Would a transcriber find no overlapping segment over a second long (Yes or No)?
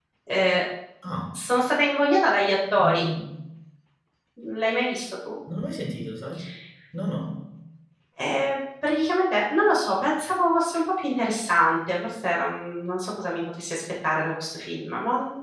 Yes